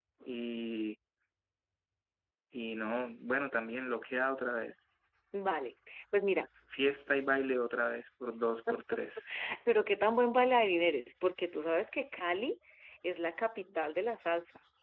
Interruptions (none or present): none